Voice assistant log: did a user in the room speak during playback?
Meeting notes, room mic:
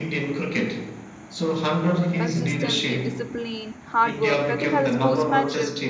Yes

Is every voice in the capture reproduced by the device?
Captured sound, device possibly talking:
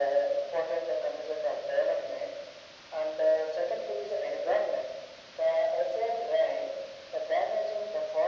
Yes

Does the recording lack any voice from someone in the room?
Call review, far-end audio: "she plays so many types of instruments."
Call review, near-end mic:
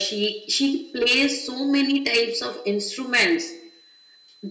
Yes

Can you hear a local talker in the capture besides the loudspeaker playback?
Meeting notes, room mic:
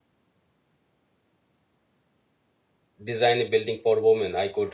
Yes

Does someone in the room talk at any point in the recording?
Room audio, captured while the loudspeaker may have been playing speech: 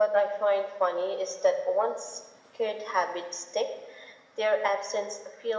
No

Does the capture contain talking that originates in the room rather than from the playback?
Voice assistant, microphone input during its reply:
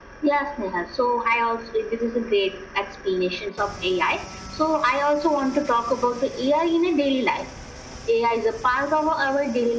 No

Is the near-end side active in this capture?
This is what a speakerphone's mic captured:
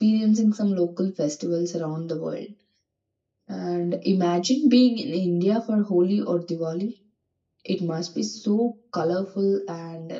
No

